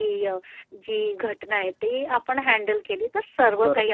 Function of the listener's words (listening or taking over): taking over